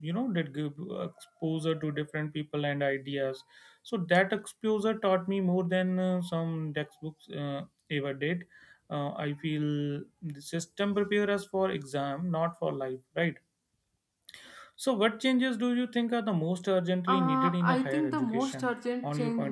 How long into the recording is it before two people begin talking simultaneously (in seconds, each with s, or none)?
17.1 s